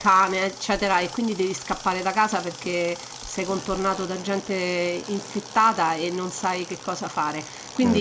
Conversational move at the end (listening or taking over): listening